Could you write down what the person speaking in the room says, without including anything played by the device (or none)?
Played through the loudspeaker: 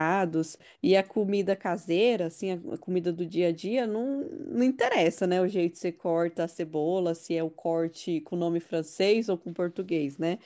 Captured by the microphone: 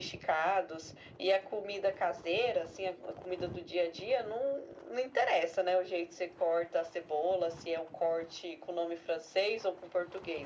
none